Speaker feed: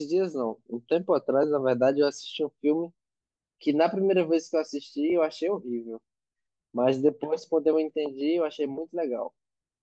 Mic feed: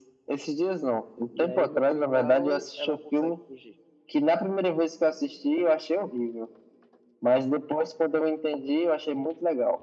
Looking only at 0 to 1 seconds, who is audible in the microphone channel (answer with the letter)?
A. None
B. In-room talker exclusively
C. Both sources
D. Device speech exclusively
D